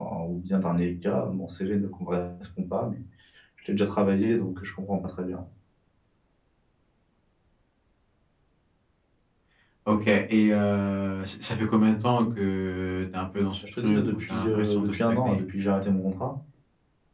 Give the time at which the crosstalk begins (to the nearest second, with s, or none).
14 s